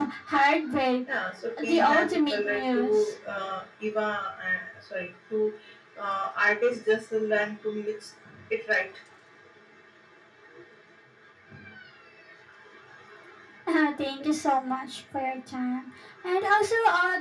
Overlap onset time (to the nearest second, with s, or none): 2 s